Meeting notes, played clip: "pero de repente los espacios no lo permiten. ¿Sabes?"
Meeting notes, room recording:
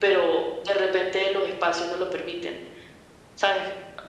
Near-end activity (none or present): none